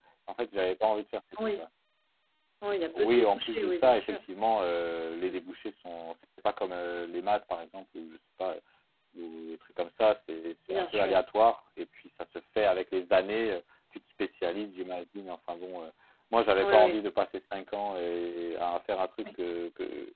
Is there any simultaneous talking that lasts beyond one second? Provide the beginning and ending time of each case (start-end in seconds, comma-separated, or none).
3.0-4.2